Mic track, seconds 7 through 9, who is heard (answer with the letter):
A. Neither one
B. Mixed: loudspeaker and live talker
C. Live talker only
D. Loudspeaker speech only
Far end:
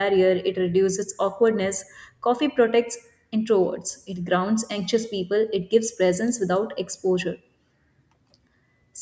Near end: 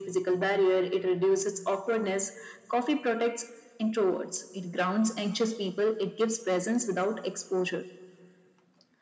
D